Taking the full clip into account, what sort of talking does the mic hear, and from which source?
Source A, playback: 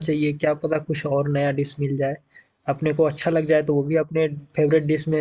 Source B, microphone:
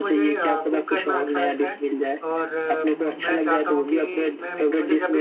both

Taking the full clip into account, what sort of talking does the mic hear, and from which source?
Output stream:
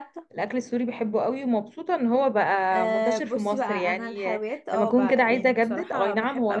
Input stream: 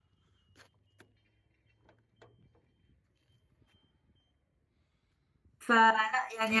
user only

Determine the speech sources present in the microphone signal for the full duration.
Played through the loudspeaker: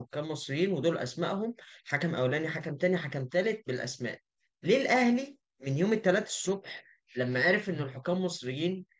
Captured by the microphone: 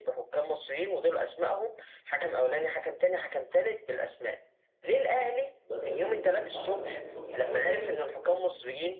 both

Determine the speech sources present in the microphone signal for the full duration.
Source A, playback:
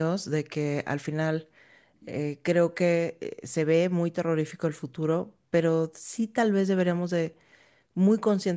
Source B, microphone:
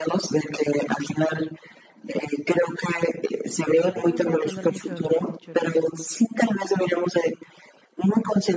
both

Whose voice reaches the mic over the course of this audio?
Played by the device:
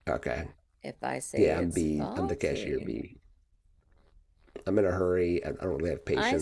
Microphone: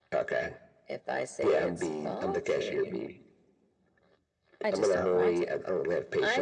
both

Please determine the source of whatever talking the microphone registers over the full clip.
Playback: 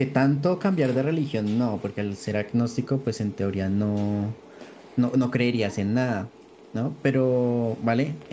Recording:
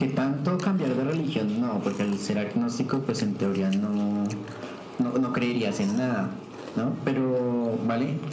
echo only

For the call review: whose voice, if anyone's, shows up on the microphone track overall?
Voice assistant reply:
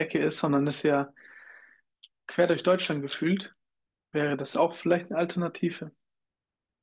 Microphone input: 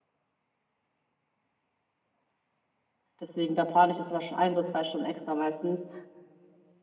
user only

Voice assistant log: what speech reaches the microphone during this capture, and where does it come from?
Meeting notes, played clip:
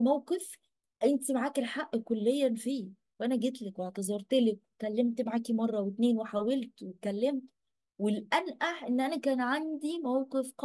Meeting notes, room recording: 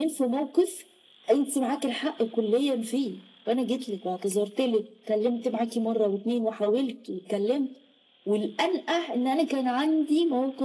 echo only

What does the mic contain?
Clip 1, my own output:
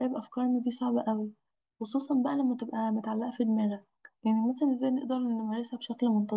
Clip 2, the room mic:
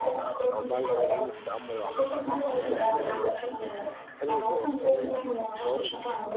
both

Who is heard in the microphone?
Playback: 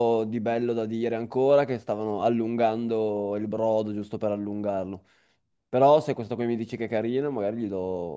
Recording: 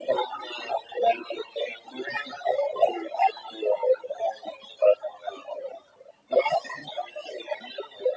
echo only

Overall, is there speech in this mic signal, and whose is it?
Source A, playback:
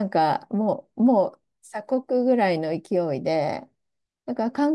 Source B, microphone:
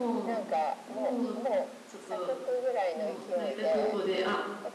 both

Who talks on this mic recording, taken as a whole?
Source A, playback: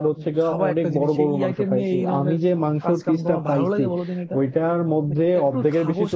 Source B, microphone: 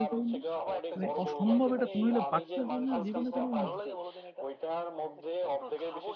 both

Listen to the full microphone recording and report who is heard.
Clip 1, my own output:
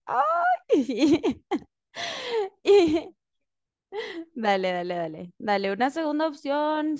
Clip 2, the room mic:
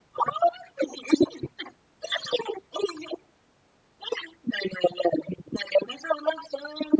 echo only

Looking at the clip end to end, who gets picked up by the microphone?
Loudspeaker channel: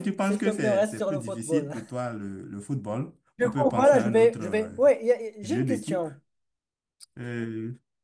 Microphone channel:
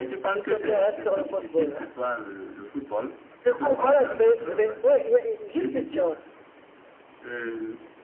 echo only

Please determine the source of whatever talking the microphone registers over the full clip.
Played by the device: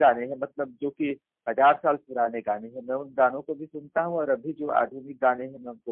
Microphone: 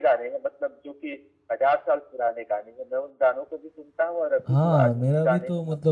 both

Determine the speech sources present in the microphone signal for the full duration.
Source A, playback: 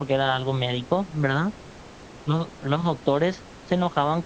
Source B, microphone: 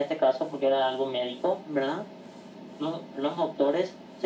echo only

